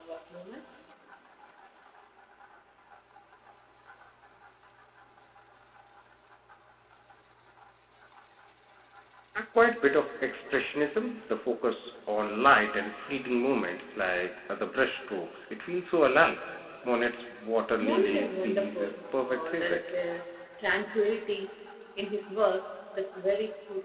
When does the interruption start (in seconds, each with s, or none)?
17.8 s